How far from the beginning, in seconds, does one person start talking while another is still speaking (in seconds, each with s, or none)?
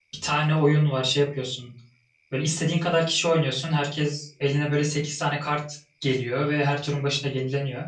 none